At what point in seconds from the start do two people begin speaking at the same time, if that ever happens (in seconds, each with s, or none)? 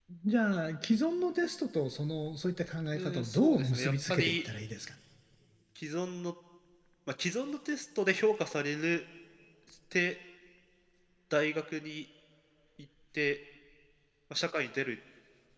2.9 s